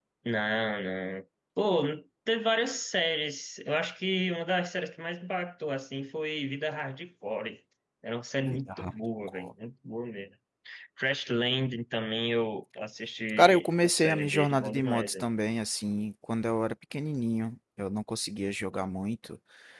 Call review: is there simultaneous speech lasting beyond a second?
Yes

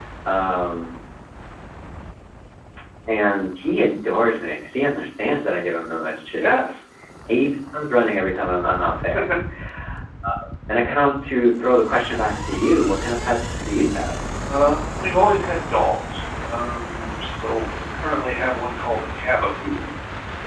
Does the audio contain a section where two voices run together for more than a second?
No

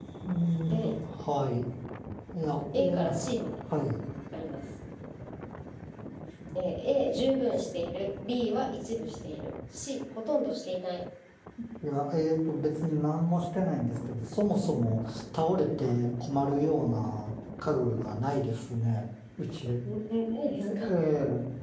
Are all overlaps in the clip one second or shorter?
Yes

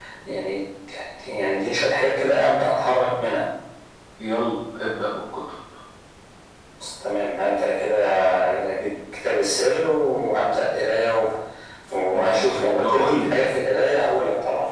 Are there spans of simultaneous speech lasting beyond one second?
Yes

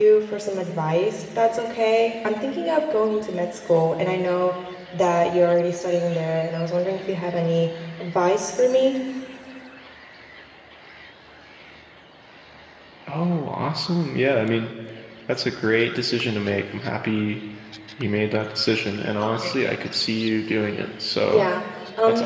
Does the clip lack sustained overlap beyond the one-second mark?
Yes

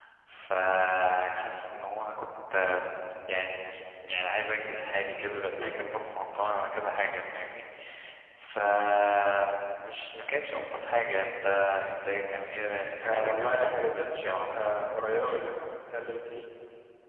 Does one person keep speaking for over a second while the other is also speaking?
Yes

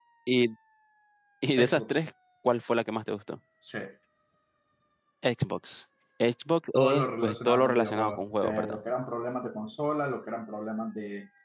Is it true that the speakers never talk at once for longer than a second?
No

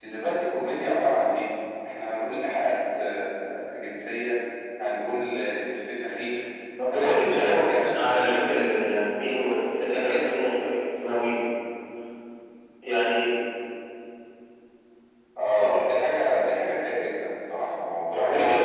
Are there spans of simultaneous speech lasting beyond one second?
Yes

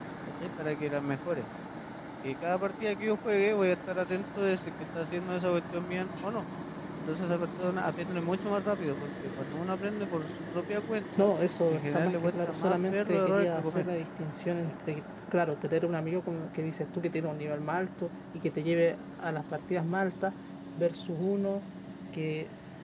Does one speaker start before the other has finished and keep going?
Yes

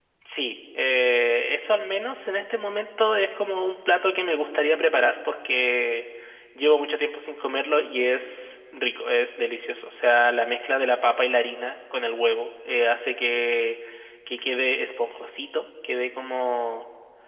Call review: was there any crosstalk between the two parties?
No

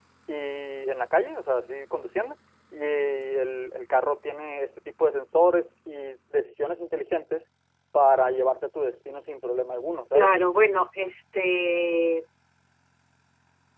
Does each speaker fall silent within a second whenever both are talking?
Yes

